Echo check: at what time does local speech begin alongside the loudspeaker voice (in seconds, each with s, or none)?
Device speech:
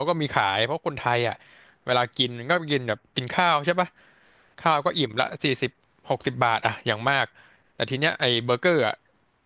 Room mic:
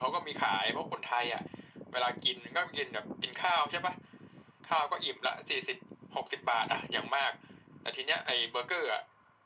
none